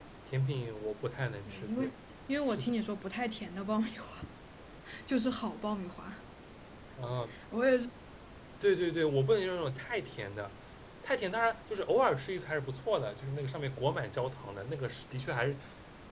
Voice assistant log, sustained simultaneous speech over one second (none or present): none